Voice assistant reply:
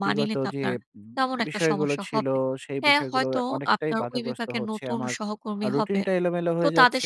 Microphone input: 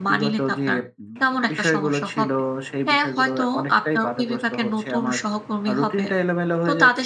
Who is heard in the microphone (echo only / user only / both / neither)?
echo only